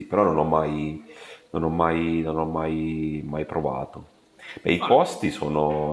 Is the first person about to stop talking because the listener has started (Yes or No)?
No